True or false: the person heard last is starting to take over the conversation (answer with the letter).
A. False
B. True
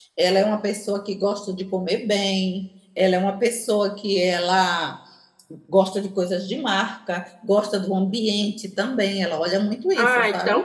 B